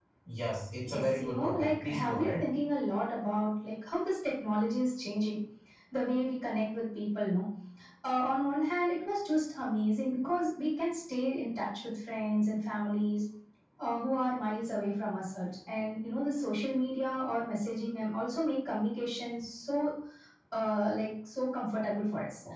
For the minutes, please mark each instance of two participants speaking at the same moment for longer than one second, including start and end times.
0.8-2.4

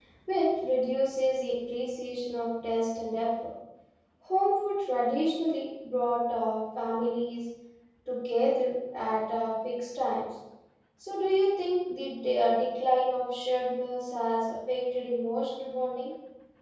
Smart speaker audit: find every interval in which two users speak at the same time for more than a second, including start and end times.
none

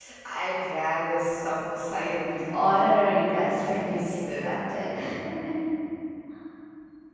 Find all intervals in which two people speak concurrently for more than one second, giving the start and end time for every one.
2.5-4.5

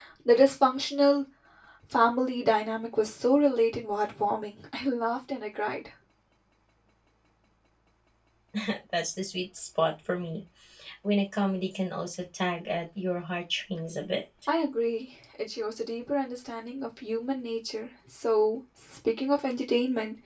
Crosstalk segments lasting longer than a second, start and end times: none

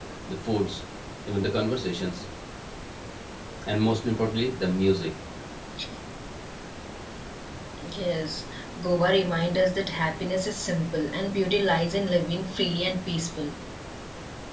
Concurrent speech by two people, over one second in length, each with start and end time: none

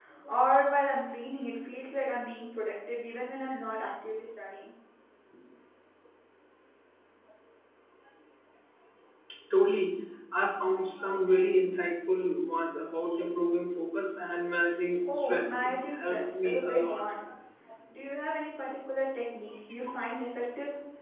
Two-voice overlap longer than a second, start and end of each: 15.1-17.0

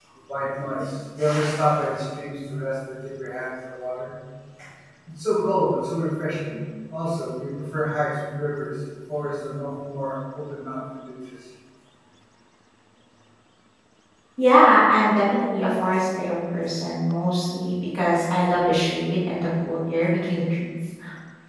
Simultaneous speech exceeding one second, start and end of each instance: none

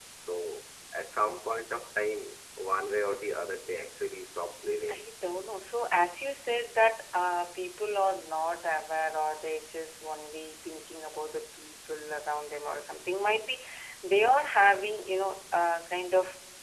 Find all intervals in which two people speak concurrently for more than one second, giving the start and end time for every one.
none

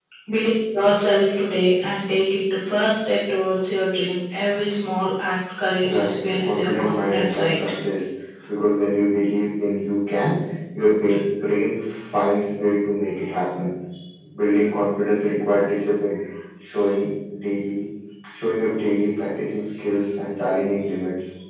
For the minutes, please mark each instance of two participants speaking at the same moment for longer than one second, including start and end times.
5.8-7.6

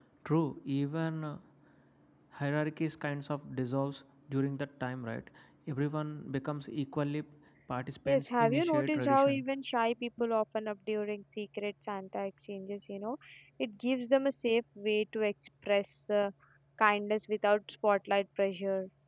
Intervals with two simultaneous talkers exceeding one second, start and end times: 8.0-9.4

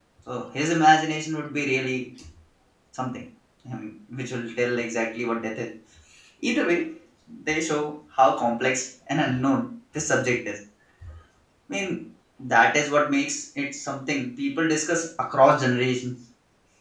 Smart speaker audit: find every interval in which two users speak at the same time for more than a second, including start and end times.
none

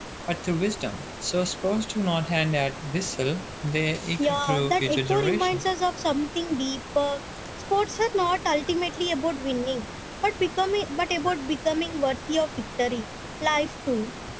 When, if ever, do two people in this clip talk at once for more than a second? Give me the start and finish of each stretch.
4.2-5.7

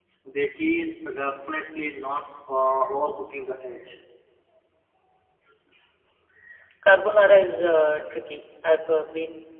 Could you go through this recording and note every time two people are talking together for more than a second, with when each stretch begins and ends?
none

